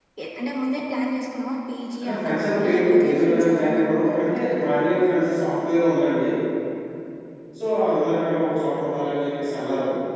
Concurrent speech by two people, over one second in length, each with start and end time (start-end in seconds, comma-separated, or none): 2.0-4.6